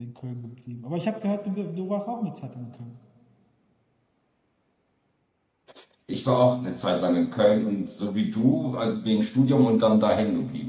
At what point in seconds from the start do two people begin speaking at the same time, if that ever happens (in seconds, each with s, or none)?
none